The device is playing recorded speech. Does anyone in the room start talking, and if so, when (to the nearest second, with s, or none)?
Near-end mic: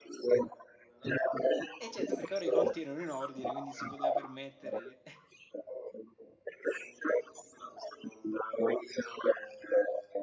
2 s